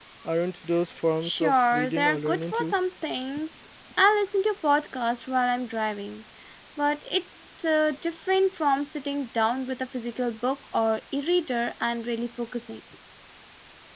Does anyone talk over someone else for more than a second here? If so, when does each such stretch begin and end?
1.2-2.7

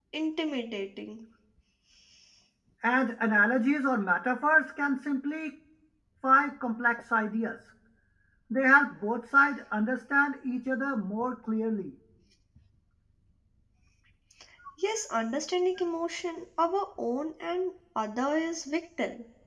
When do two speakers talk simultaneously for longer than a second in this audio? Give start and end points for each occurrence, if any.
none

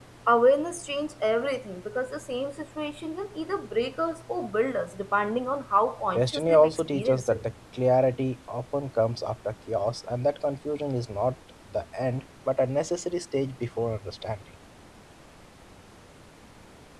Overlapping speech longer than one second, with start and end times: 6.2-7.4

